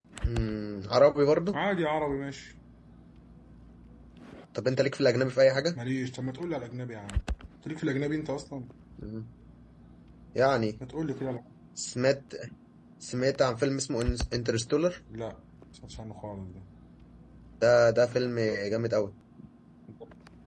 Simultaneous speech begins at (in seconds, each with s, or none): none